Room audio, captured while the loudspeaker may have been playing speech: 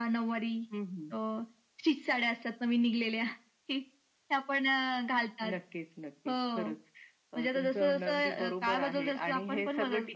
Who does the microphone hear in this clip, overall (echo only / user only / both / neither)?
echo only